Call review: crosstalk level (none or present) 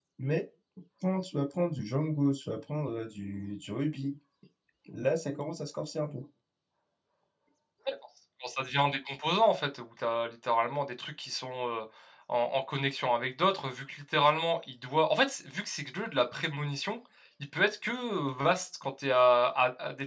none